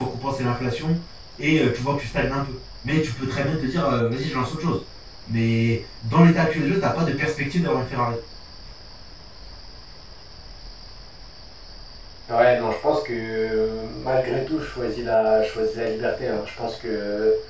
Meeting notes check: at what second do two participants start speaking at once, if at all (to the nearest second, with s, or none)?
none